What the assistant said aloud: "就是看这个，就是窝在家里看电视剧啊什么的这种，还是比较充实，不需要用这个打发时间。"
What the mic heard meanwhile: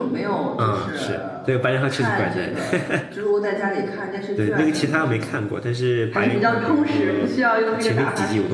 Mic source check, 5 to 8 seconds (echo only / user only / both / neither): both